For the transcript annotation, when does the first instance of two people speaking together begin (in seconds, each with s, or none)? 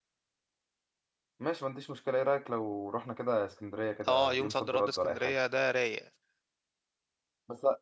4.0 s